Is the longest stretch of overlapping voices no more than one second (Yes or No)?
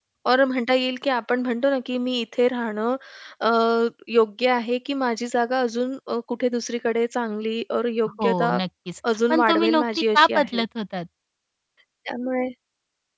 No